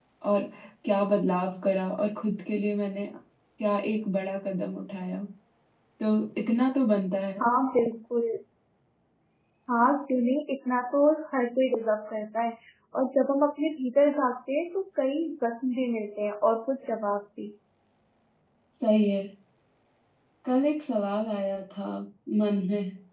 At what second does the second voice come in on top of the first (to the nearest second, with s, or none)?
none